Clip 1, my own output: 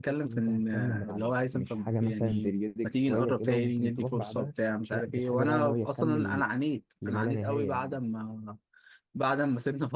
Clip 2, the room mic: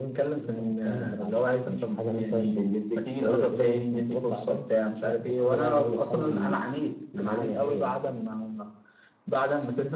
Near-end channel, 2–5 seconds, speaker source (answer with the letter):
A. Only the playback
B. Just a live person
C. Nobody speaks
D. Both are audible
A